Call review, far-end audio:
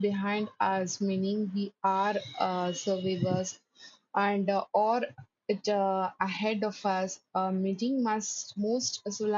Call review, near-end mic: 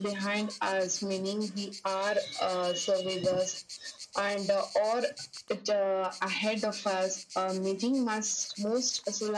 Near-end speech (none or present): none